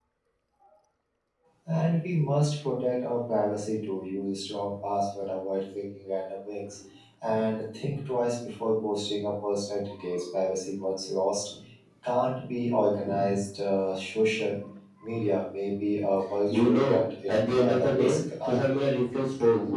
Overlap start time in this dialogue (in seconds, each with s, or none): 16.5 s